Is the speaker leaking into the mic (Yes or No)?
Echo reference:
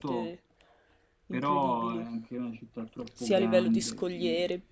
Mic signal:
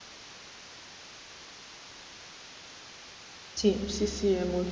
No